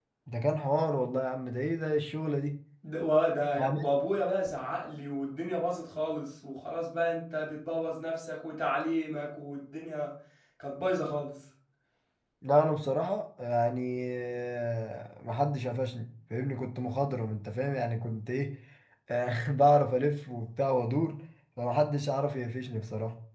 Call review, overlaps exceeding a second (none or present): none